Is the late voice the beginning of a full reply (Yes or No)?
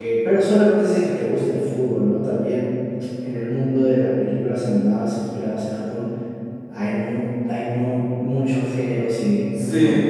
Yes